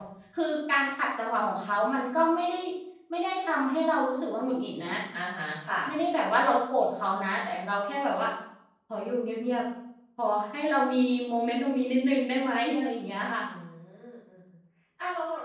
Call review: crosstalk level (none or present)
none